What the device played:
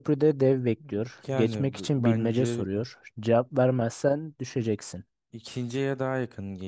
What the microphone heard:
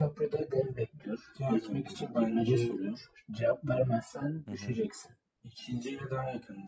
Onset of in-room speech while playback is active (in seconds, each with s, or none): 4.5 s